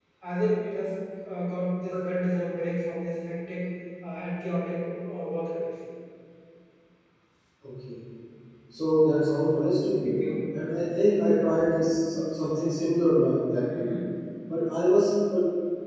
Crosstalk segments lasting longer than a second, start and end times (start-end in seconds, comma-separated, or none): none